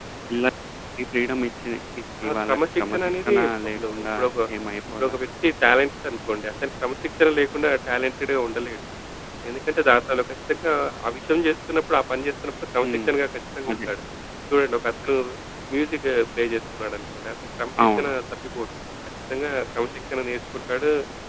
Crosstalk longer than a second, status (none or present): present